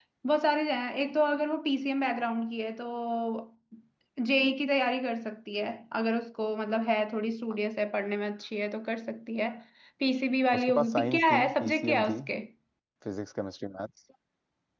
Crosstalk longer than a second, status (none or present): present